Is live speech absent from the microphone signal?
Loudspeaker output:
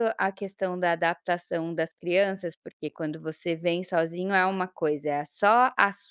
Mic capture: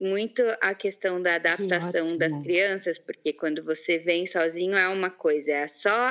No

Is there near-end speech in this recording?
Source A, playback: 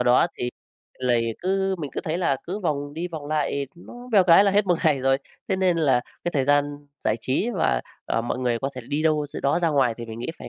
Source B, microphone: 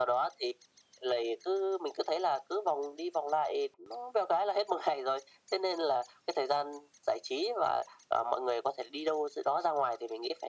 No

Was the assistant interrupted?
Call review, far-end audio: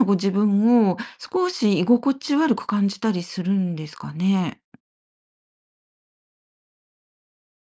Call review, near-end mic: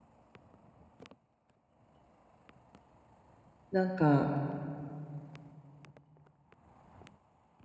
Yes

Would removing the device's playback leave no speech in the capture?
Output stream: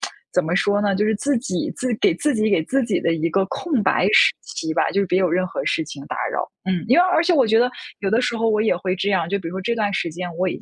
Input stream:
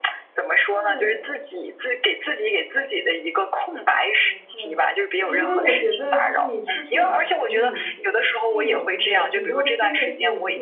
No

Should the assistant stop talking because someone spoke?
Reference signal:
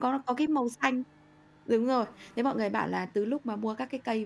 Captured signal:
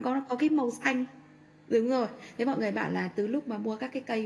No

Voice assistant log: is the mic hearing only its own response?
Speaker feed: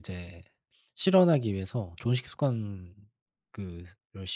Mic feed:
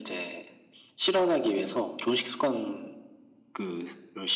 Yes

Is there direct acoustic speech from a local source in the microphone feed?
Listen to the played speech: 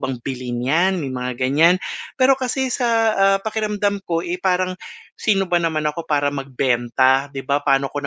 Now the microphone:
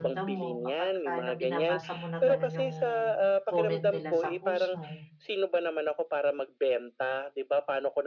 Yes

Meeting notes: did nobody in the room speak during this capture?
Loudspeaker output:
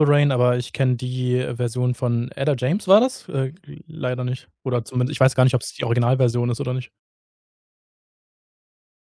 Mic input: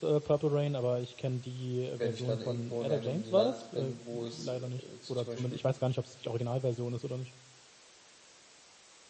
No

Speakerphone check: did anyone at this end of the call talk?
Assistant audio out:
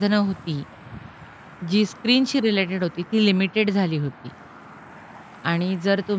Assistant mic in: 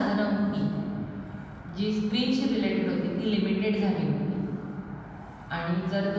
No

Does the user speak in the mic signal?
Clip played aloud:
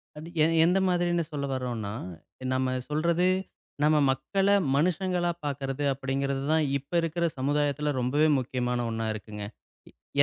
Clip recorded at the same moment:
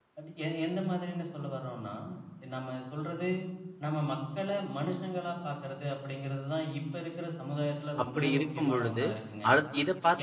Yes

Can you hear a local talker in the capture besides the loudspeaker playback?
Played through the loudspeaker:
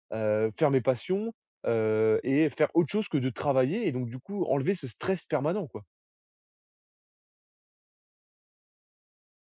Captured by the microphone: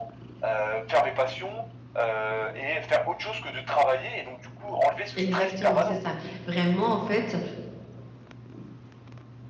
Yes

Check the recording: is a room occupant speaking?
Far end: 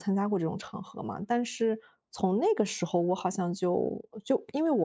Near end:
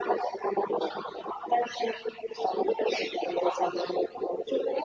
No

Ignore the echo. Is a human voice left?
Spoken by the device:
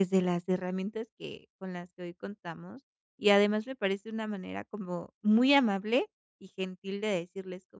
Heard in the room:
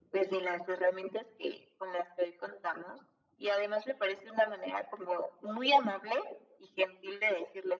No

